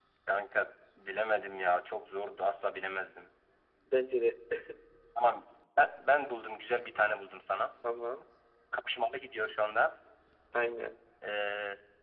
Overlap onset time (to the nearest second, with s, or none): none